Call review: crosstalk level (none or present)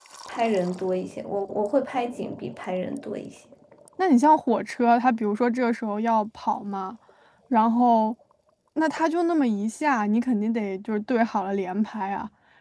none